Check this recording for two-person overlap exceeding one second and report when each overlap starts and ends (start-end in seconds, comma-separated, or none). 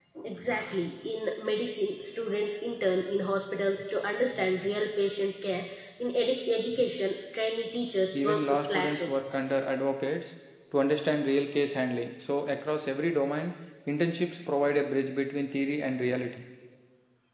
8.1-9.3